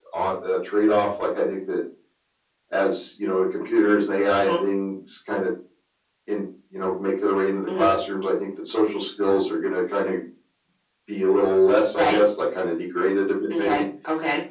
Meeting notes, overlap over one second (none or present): none